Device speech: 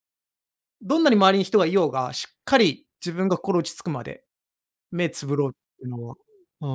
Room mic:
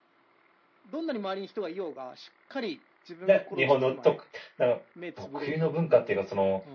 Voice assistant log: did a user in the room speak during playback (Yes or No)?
Yes